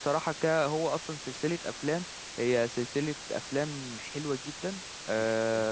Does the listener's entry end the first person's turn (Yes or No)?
No